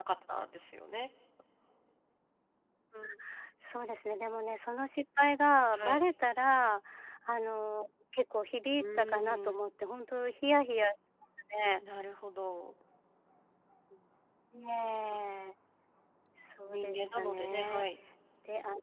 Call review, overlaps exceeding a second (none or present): present